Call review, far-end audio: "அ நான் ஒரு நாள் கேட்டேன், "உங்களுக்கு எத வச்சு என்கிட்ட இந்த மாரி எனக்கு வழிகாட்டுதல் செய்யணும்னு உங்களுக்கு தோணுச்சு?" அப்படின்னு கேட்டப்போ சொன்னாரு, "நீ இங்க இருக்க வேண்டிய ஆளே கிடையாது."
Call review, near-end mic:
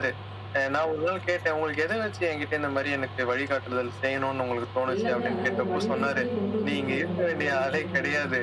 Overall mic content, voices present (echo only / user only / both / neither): both